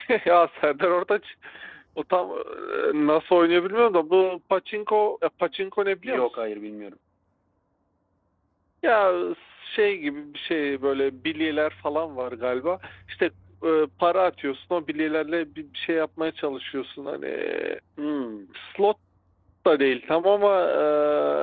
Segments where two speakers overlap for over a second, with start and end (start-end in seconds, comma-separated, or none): none